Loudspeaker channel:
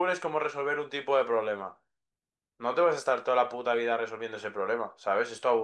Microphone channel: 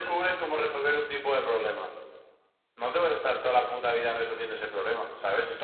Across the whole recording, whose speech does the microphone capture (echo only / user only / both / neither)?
echo only